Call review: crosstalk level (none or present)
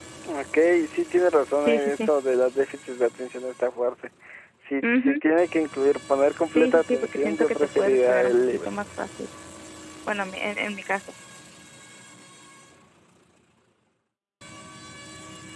present